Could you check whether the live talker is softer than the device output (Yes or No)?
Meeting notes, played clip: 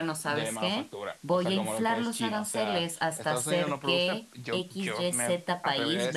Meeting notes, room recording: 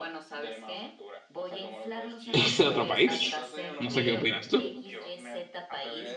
No